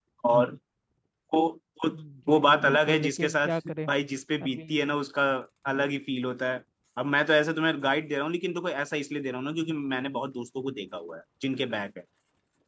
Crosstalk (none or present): present